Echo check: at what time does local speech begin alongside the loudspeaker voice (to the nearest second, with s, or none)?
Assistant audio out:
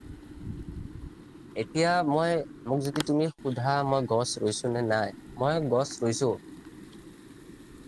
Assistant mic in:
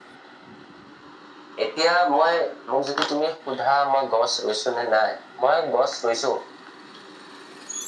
none